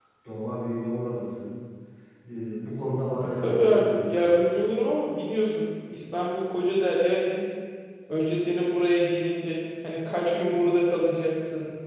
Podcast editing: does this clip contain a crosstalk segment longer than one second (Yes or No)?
Yes